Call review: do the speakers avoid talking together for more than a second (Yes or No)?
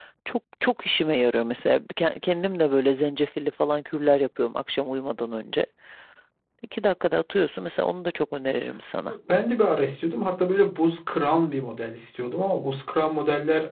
Yes